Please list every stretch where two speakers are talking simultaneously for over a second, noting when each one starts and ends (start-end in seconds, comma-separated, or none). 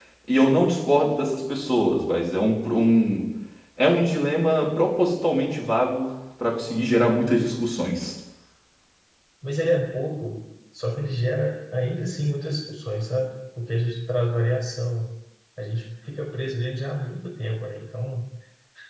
none